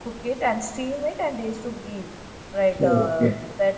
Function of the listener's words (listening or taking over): listening